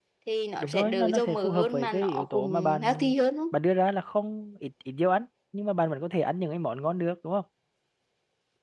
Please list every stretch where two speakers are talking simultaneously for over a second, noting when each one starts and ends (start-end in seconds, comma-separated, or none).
0.6-3.1